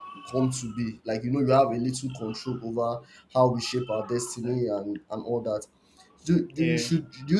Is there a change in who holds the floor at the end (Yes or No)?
No